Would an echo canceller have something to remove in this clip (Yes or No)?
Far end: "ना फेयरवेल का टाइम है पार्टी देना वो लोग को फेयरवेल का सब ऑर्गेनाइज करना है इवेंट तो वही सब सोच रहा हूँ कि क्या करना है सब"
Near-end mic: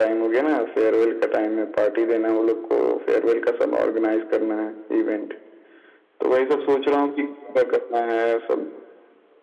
Yes